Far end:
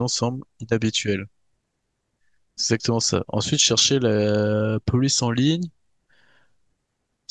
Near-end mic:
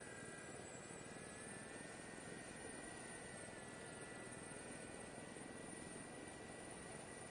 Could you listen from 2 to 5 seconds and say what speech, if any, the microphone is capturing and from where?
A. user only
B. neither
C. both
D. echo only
B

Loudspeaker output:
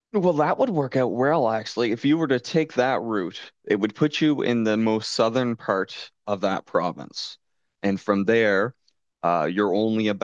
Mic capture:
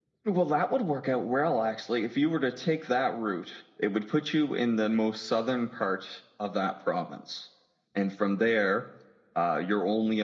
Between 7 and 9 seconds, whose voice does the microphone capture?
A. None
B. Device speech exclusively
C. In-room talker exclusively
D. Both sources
B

